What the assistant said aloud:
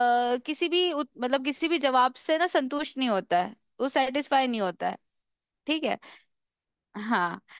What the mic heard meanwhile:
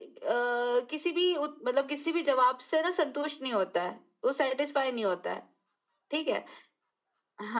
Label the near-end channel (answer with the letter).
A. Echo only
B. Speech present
A